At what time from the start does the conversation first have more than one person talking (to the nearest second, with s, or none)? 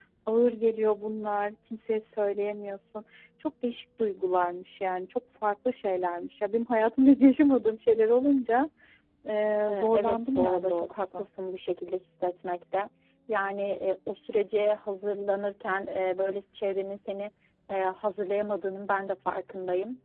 10 s